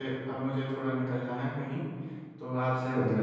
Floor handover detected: No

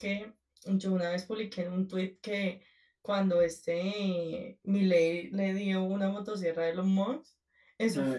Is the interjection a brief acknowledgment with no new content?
Yes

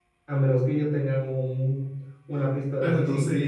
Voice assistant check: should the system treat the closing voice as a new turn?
Yes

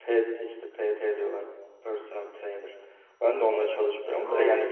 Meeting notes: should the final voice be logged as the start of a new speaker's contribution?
No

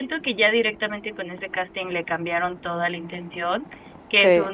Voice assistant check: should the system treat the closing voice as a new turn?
No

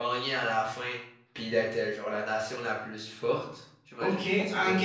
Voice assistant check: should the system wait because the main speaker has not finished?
No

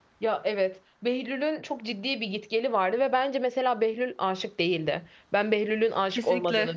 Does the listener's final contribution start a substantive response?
No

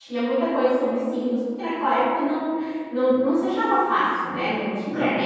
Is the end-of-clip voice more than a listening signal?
Yes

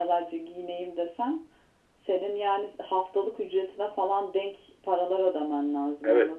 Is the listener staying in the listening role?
No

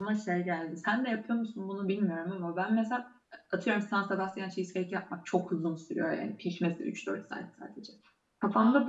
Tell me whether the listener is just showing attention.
Yes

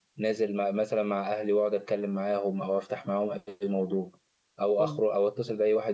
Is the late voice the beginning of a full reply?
No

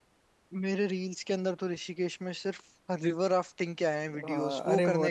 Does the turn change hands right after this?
Yes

